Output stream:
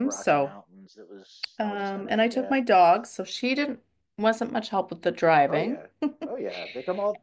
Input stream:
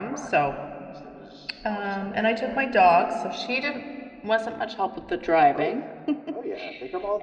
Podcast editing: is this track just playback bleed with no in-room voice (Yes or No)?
Yes